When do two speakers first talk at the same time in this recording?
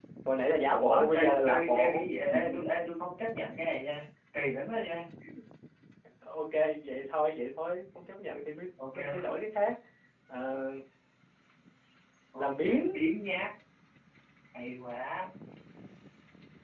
1 s

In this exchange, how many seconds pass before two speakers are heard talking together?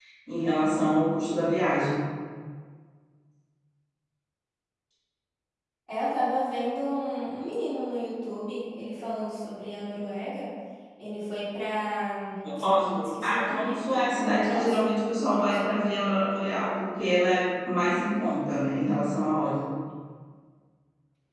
13 s

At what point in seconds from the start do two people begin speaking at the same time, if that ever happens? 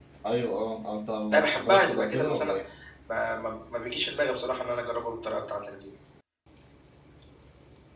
1 s

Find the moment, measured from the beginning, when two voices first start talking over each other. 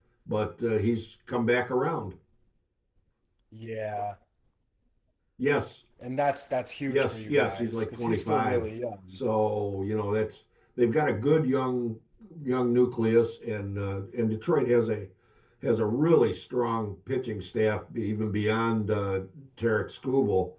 7 s

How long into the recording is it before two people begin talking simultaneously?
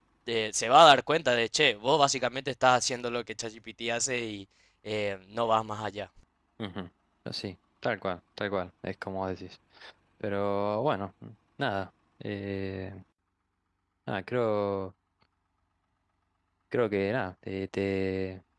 none

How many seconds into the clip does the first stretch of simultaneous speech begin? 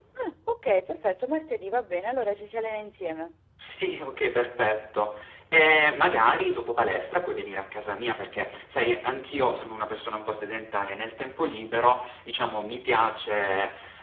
none

